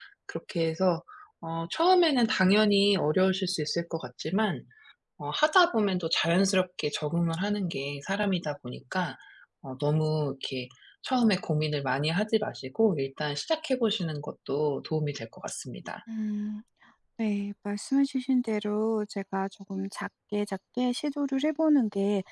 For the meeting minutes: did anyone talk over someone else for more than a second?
No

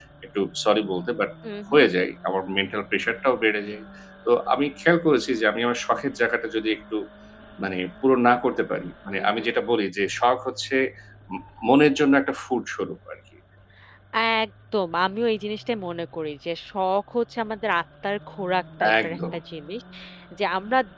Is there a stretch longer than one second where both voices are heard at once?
No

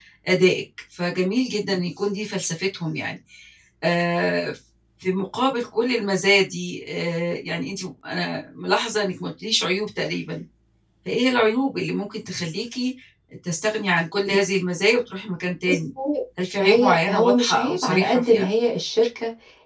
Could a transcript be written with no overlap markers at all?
No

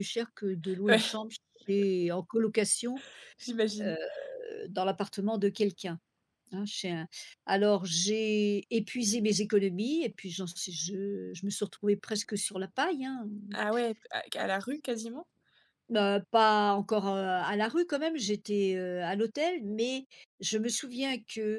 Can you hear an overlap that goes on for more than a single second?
No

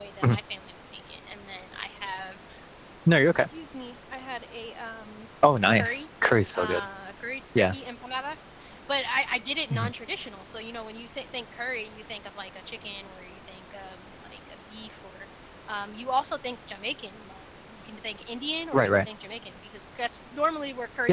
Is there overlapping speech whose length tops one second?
No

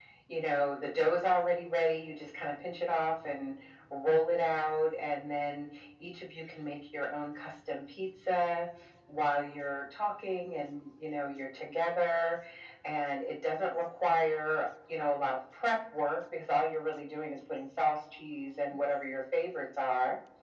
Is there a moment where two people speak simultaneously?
No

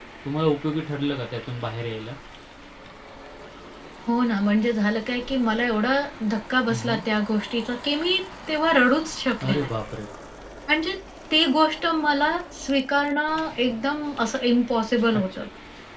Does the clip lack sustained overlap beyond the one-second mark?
Yes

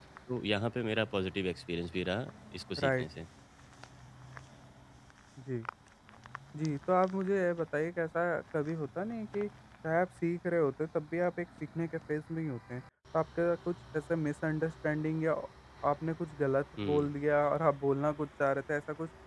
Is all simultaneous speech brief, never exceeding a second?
Yes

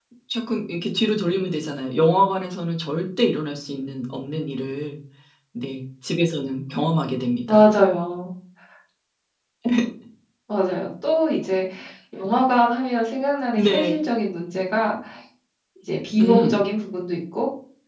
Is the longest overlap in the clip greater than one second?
No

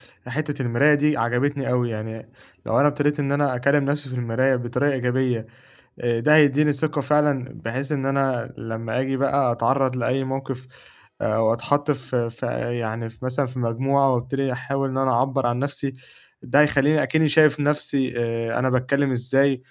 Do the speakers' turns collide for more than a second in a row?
No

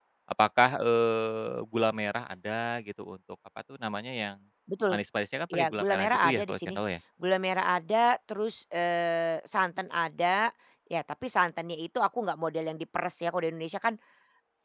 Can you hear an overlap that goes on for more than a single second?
Yes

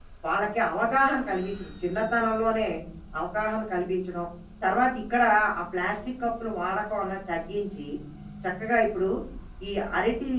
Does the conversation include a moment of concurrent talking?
No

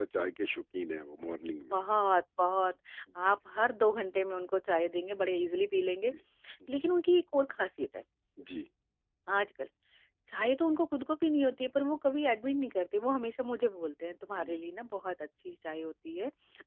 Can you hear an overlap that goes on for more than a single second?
No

